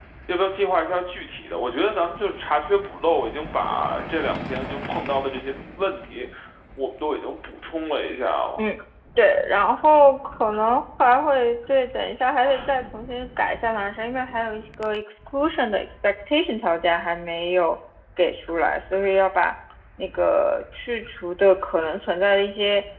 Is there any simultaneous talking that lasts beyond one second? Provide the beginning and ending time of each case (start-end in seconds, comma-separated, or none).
none